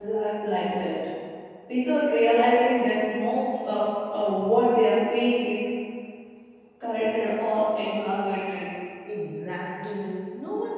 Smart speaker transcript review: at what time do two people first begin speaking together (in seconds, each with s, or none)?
none